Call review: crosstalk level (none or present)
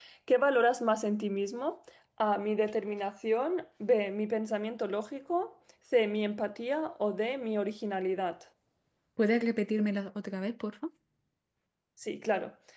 none